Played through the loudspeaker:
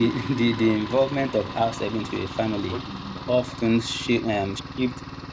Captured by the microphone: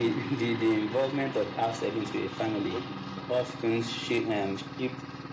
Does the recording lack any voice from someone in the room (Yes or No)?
Yes